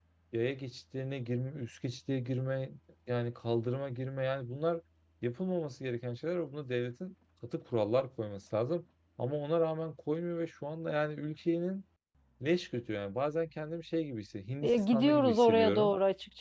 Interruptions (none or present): present